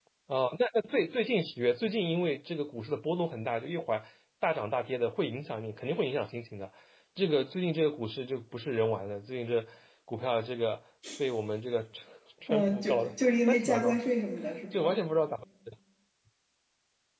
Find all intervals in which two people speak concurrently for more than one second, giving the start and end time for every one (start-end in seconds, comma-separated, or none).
12.5-13.9